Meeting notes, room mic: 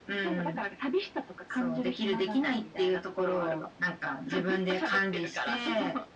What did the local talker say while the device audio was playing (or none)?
none